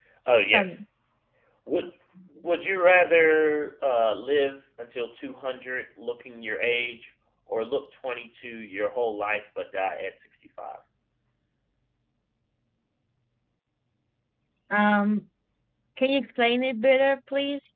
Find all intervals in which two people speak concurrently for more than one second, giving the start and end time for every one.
none

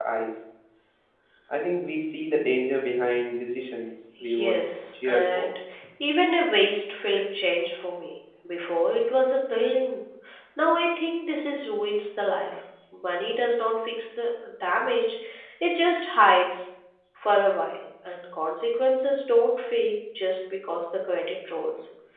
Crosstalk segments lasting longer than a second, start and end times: 4.2-5.5

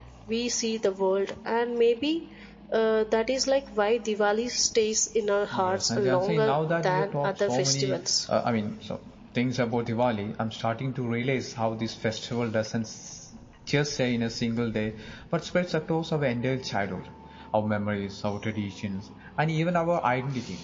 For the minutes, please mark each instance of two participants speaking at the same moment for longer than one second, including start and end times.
5.5-8.0

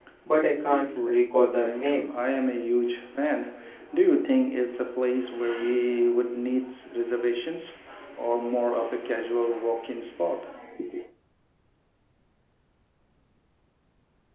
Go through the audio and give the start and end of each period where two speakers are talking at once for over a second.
0.6-2.1

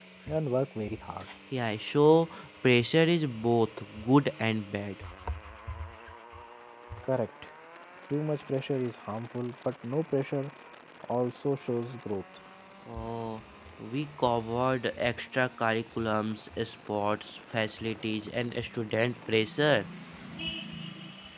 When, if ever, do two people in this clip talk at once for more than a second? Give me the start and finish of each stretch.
none

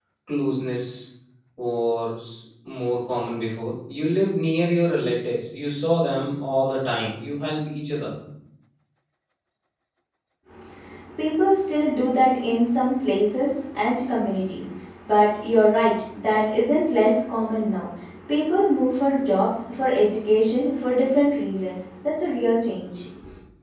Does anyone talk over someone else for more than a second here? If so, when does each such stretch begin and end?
none

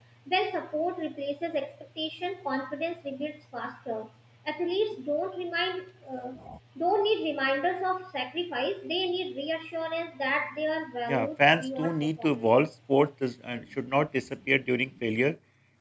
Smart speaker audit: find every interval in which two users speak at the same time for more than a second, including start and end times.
11.1-12.5

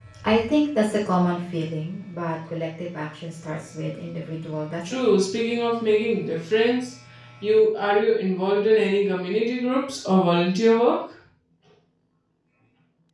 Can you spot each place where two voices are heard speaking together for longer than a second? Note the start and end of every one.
none

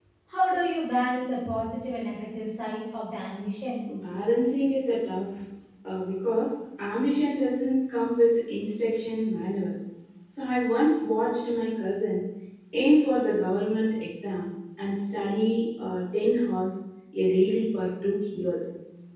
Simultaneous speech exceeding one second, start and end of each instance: none

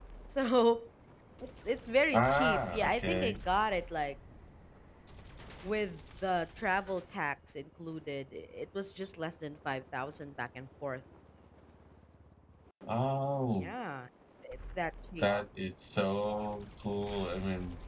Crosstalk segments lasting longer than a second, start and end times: 2.1-3.4

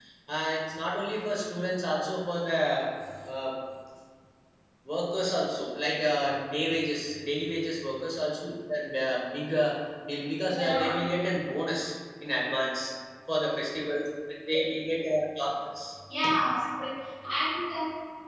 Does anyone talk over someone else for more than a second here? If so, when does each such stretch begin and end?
none

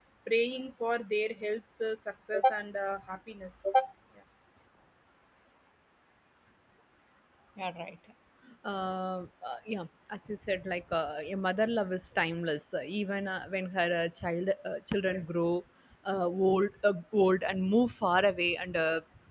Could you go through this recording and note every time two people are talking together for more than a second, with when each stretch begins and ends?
none

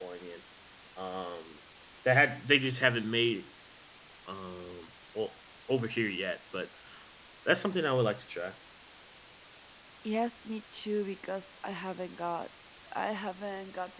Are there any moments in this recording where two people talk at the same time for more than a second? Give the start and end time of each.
none

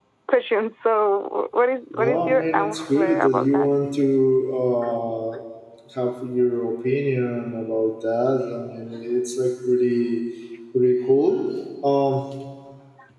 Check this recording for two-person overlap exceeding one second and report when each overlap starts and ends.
2.0-3.7

